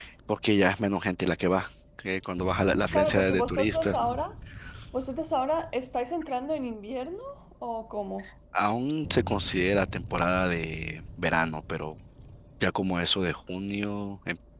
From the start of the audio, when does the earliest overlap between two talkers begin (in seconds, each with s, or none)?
2.9 s